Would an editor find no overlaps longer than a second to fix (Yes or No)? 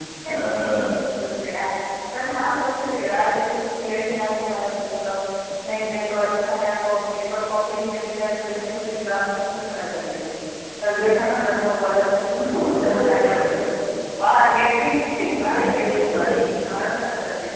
No